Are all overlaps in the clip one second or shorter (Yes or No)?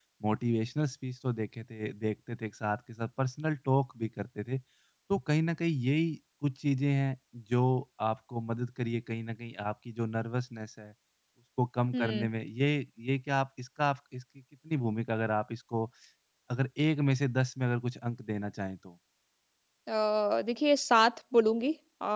Yes